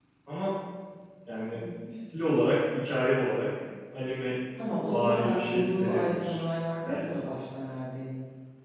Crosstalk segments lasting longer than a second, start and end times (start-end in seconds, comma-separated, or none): 4.9-6.4